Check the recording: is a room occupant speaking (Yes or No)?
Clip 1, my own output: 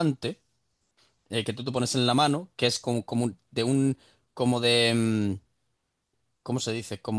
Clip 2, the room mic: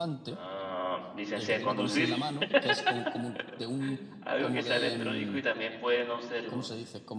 Yes